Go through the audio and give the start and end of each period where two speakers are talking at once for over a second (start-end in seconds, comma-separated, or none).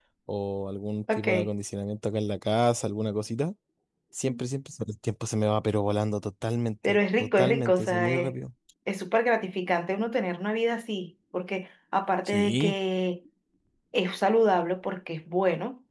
6.8-8.3